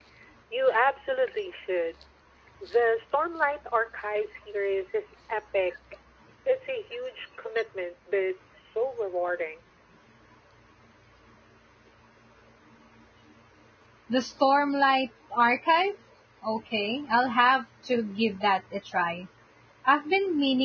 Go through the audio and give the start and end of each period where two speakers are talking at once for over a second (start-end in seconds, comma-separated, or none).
none